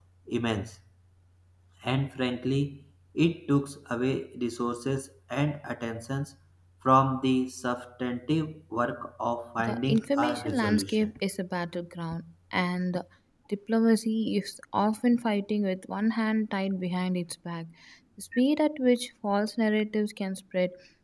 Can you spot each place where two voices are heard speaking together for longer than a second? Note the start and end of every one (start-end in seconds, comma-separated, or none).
9.6-11.1